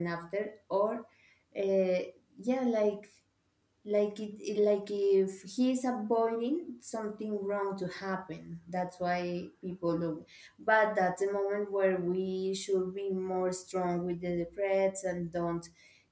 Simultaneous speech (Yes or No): No